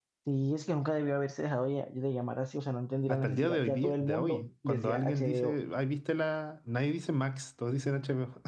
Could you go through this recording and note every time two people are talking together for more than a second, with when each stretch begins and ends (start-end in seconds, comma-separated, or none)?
3.1-5.6